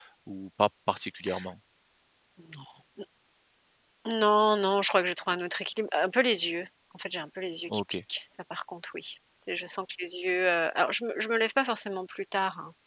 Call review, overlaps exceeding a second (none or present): none